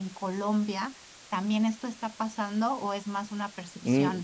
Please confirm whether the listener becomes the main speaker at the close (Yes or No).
Yes